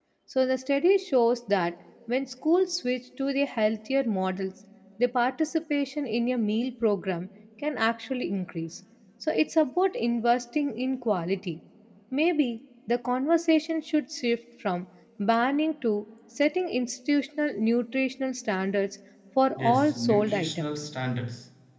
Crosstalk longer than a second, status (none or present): present